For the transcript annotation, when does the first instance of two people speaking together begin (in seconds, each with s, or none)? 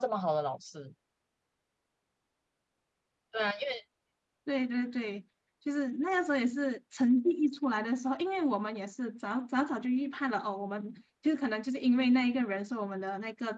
none